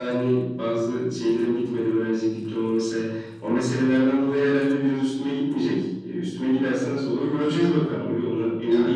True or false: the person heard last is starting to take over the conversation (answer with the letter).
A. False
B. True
B